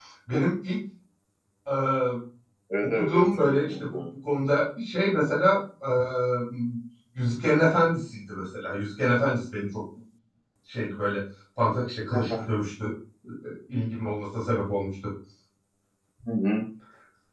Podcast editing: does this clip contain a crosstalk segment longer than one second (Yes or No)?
Yes